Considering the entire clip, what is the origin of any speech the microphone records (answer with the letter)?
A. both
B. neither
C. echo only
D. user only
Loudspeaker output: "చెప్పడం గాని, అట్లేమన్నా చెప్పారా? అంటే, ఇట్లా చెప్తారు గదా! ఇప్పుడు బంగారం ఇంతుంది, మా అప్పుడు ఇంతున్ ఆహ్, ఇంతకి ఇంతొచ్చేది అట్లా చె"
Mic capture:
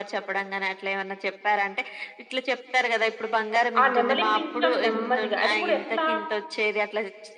A